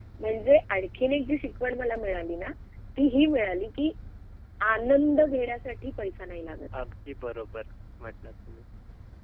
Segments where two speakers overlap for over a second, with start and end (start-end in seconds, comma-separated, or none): none